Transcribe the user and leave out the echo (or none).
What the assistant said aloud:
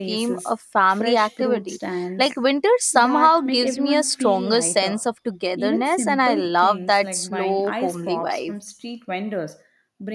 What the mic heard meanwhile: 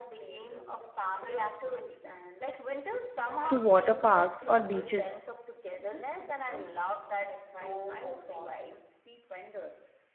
to water parks or beaches,